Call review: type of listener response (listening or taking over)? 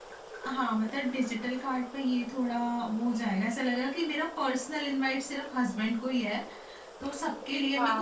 listening